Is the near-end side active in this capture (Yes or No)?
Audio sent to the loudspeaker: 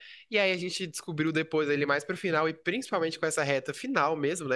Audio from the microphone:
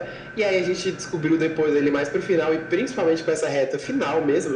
No